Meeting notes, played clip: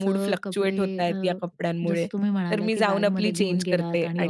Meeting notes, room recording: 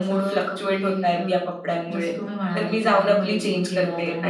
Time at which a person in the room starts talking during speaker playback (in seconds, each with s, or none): none